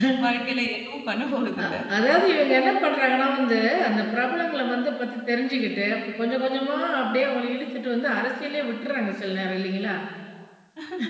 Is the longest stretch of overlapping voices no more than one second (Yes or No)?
Yes